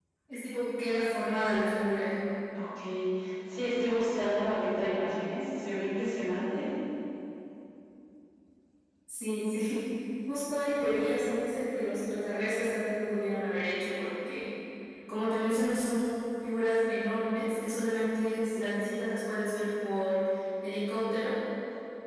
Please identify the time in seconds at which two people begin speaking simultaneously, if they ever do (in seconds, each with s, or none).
none